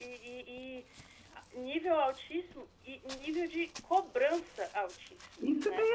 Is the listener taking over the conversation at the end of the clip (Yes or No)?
Yes